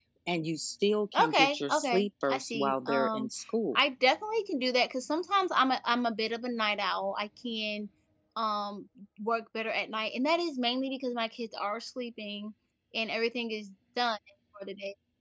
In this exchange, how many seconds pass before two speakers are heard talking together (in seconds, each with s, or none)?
1.1 s